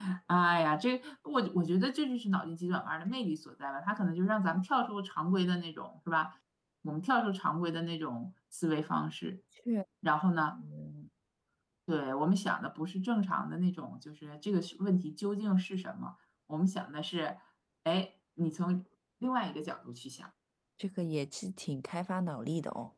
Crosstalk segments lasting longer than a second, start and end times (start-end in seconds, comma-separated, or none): none